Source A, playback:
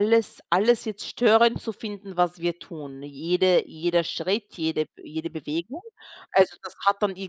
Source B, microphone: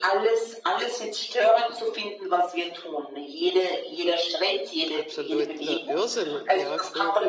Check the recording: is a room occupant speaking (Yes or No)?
Yes